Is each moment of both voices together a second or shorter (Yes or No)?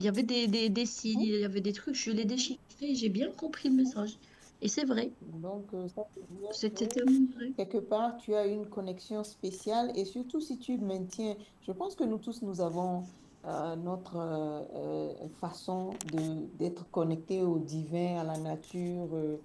Yes